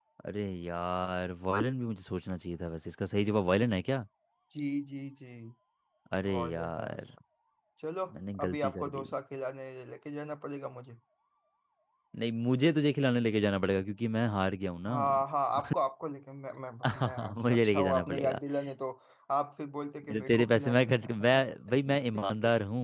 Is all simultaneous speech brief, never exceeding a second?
No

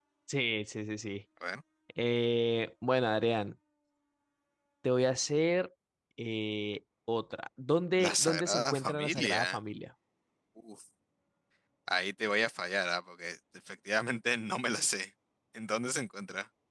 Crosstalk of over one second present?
Yes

